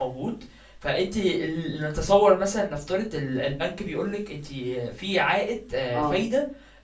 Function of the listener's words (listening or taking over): listening